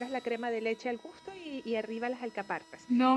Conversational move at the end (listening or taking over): listening